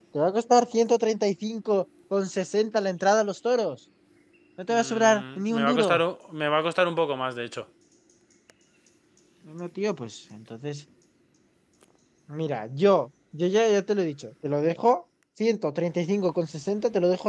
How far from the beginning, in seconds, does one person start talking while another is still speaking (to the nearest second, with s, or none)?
5 s